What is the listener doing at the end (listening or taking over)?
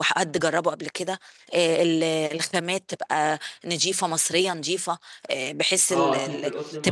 taking over